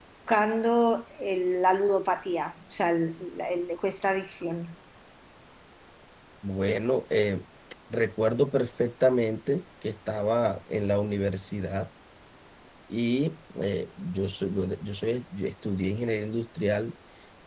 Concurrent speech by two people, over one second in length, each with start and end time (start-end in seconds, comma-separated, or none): none